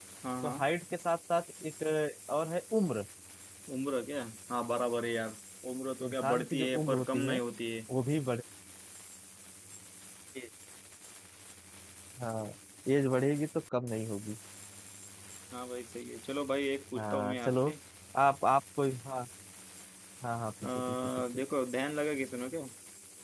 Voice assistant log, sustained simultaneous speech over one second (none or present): present